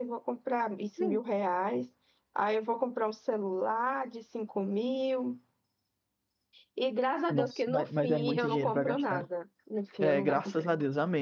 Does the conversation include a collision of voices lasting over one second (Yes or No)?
Yes